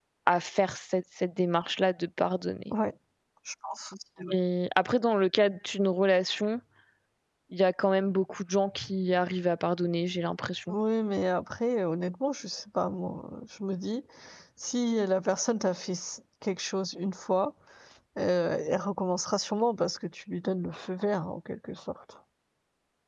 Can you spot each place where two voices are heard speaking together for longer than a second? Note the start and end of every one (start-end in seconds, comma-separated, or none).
none